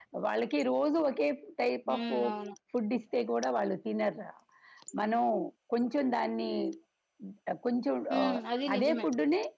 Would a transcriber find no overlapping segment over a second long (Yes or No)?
Yes